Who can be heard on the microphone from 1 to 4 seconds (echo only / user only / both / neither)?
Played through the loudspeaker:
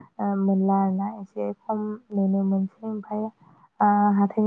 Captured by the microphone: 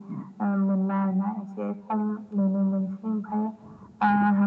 echo only